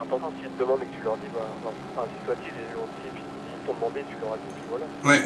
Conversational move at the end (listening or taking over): taking over